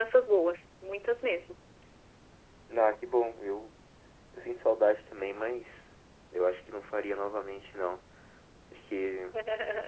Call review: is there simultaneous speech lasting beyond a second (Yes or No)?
No